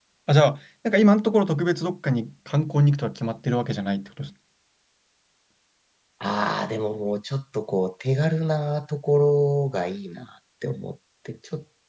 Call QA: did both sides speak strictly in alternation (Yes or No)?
Yes